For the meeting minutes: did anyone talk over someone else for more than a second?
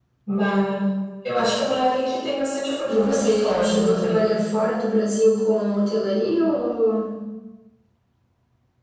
Yes, from 2.9 s

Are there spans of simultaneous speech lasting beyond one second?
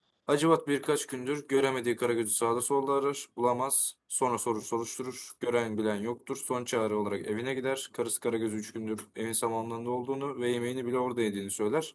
No

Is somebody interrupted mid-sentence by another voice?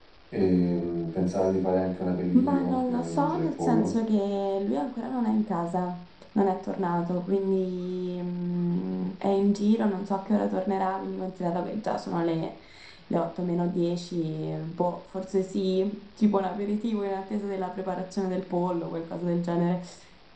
Yes, from 2.3 s

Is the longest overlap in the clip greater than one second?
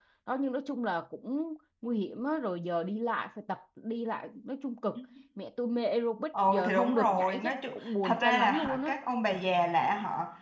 Yes, from 6.3 s

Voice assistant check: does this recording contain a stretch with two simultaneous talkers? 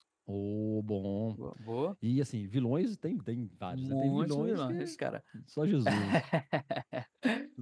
Yes, from 3.7 s

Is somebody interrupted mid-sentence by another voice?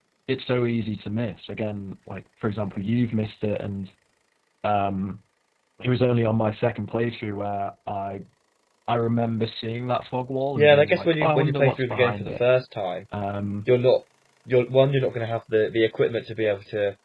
Yes, from 10.6 s

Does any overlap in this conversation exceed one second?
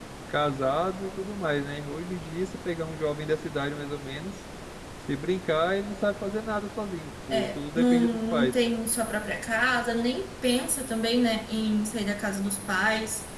Yes, from 7.3 s

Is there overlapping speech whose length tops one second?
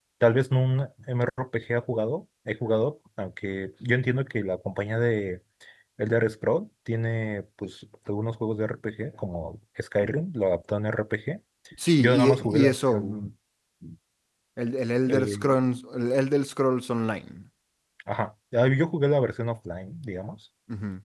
Yes, from 12.0 s

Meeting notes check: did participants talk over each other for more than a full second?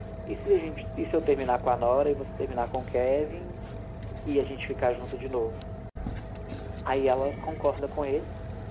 No

